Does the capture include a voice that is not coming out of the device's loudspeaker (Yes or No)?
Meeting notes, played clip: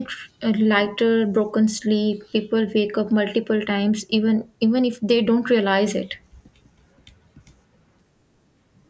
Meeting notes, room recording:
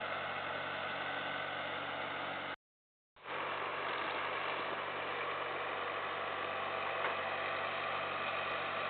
No